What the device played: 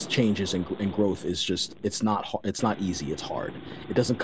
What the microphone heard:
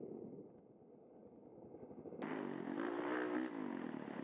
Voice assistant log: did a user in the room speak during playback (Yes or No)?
No